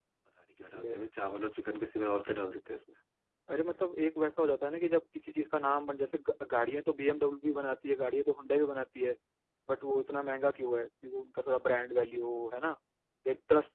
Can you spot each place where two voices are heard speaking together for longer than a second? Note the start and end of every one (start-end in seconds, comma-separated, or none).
none